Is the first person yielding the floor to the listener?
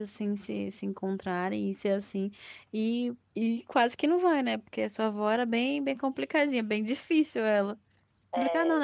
Yes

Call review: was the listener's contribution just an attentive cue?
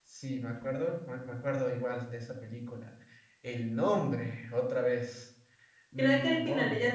No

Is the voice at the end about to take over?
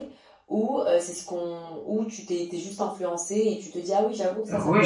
Yes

